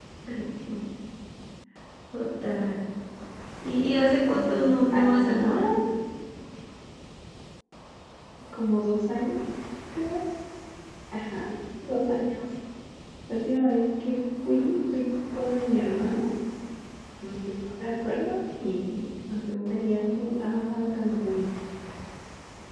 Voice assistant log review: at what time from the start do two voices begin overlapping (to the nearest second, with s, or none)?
4 s